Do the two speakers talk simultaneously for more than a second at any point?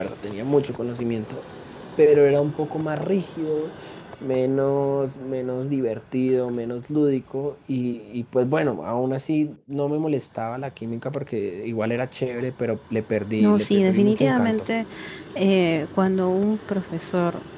Yes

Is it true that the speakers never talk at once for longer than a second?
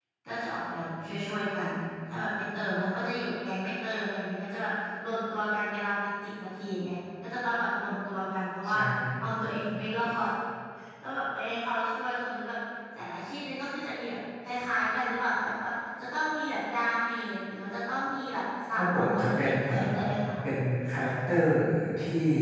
No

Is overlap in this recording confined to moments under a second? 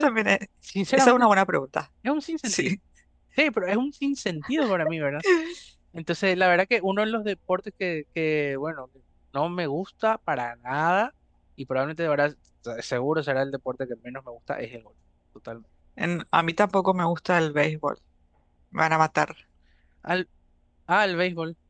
Yes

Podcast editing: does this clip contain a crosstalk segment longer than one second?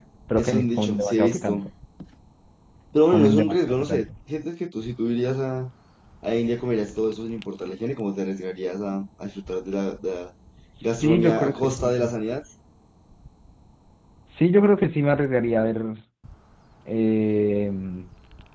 Yes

